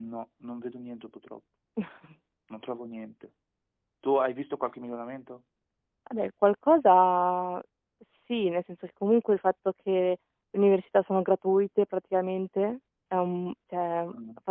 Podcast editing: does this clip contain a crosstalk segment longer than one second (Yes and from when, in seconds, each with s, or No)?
No